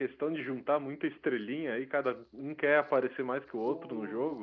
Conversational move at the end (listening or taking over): listening